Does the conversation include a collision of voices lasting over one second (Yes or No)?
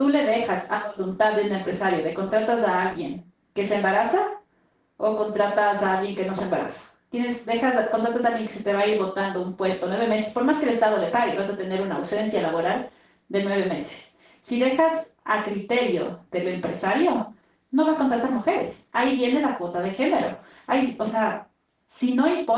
No